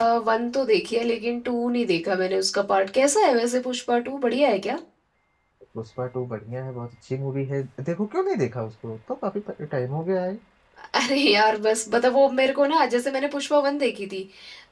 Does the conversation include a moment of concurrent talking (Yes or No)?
No